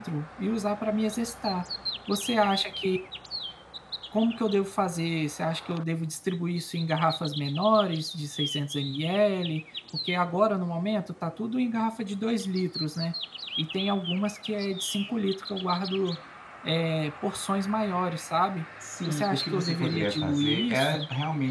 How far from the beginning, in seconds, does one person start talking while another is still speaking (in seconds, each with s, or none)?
19.1 s